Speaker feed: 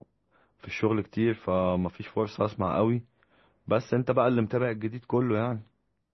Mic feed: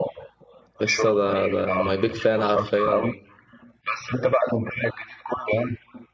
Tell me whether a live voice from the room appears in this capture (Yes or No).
Yes